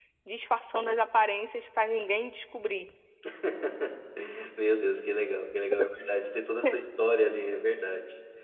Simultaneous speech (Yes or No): No